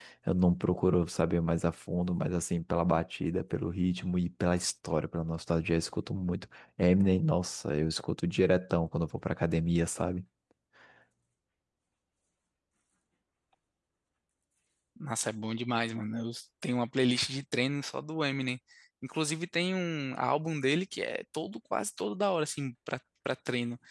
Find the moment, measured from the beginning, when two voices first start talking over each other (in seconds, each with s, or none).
none